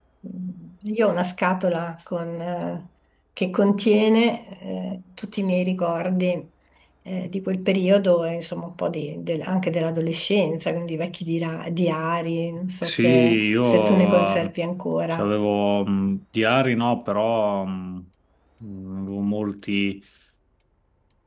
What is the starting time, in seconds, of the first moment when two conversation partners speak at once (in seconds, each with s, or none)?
12.8 s